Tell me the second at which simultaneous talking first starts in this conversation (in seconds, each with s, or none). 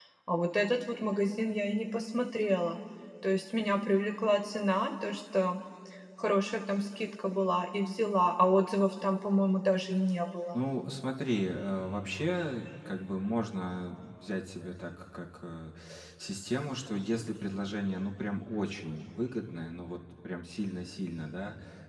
none